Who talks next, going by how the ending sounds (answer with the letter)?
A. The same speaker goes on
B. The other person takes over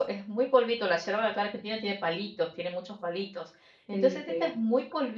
A